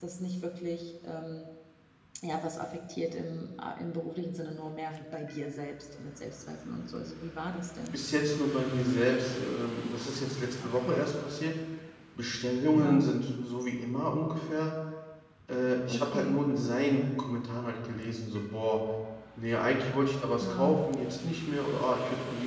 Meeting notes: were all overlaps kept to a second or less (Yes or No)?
Yes